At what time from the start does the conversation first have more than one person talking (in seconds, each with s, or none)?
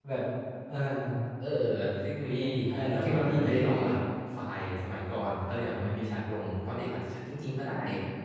2.3 s